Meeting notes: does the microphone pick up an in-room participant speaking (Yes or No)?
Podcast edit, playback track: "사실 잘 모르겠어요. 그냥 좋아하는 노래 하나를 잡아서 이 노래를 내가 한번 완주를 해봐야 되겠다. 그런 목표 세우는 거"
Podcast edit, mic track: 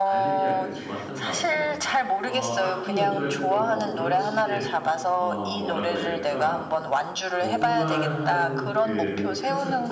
Yes